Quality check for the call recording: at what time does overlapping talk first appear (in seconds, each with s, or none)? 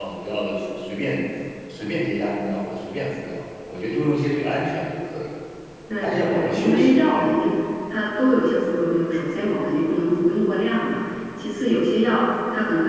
6.0 s